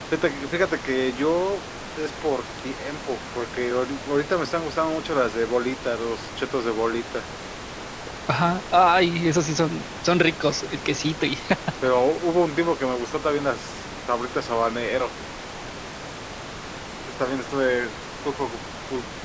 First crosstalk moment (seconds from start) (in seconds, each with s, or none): none